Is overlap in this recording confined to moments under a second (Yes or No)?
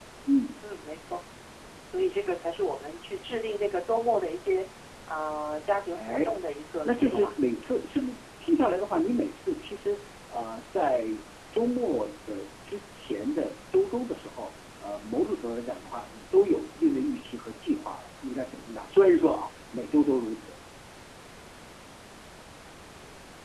Yes